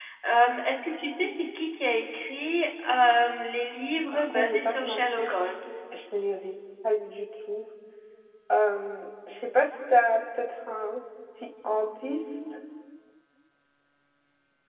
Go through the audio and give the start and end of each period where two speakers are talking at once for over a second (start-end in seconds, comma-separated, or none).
4.1-5.4